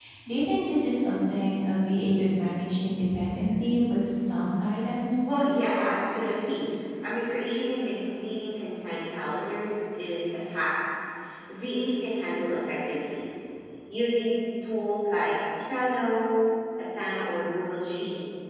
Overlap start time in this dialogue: none

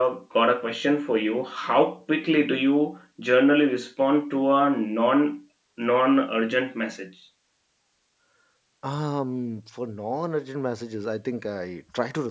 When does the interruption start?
none

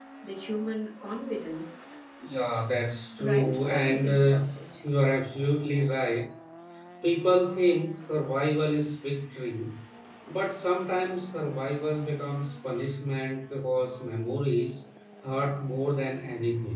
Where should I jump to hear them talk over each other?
3.2 s

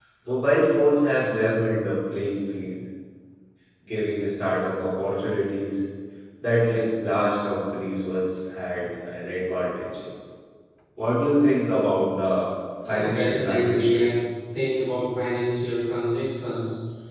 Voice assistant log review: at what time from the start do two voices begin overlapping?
12.8 s

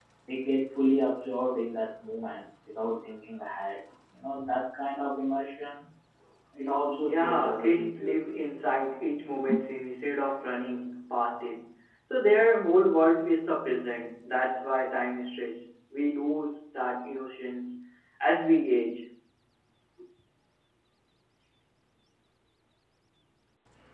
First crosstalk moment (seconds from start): 7.0 s

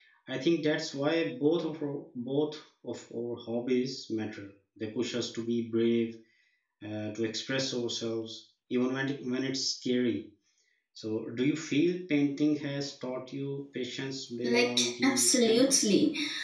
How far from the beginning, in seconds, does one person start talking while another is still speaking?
14.4 s

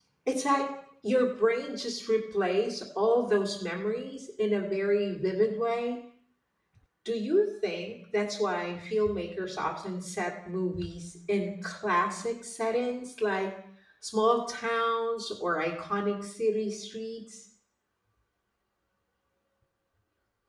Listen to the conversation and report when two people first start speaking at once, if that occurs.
none

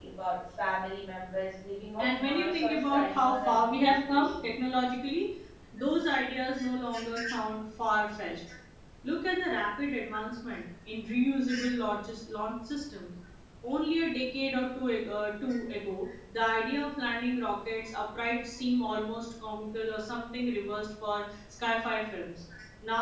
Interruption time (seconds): 2.0 s

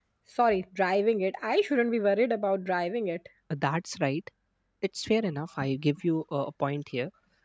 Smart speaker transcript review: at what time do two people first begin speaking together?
none

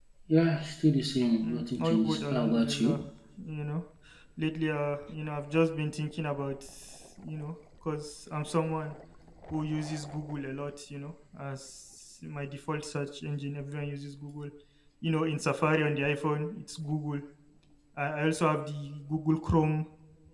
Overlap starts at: 1.4 s

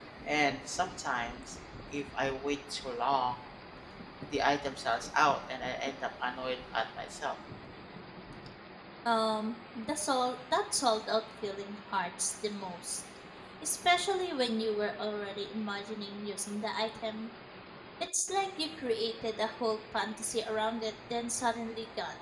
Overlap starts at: none

